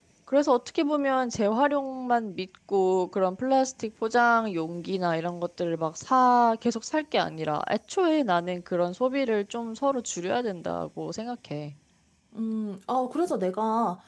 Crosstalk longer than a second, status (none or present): none